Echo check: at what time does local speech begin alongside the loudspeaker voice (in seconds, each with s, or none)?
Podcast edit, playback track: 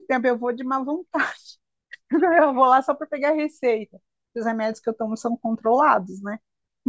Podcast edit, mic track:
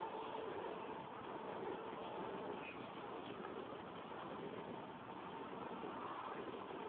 none